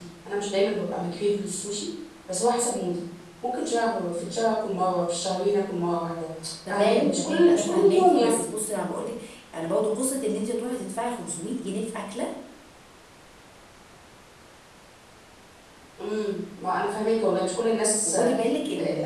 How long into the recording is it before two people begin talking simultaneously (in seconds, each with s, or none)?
6.7 s